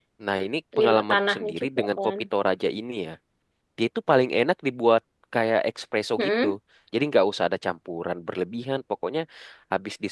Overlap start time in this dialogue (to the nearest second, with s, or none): 1 s